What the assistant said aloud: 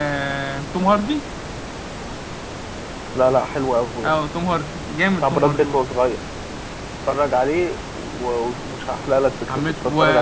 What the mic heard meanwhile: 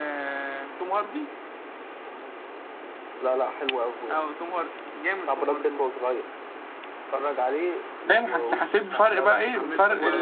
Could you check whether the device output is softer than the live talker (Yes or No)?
Yes